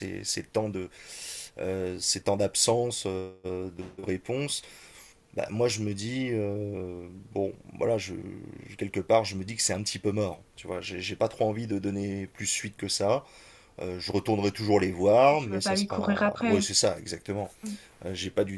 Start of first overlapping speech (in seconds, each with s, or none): 15.4 s